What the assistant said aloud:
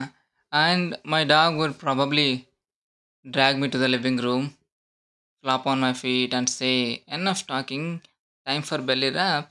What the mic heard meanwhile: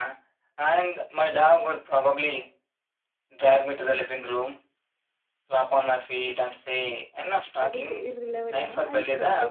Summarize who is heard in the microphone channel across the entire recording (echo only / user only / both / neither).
both